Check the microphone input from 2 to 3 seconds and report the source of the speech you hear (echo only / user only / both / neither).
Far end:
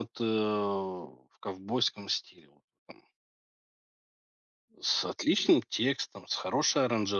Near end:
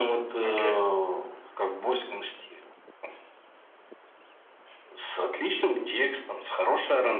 echo only